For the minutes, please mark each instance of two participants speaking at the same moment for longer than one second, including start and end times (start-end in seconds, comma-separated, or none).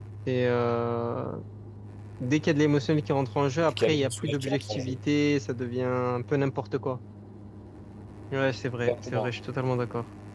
3.6-5.0